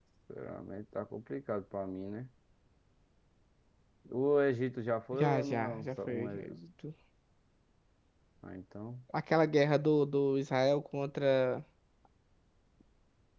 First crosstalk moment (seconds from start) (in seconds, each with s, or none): 5.1 s